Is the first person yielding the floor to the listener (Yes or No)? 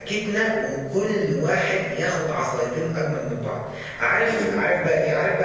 No